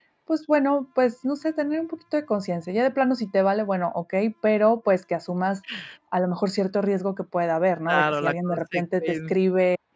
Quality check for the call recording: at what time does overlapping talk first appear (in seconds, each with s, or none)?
7.9 s